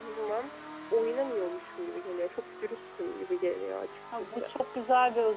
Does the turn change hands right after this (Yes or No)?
Yes